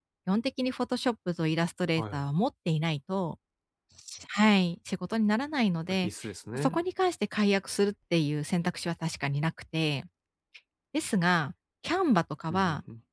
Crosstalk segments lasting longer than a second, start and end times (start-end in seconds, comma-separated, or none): none